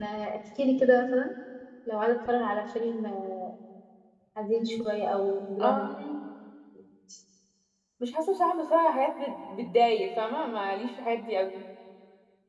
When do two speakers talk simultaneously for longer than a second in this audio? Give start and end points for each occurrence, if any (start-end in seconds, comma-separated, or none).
none